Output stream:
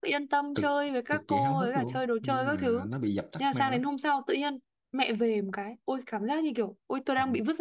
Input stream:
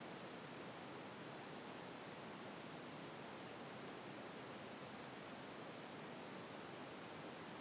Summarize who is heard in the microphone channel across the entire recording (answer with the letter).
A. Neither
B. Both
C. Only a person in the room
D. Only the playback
A